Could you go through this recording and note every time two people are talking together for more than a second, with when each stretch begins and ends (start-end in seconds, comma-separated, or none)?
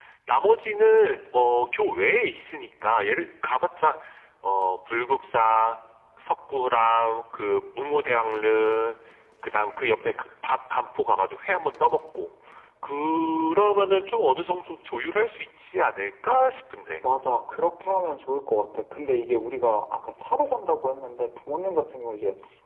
none